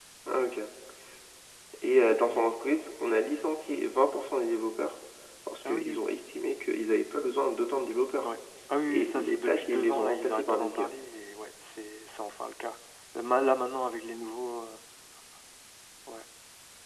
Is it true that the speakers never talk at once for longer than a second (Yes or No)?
No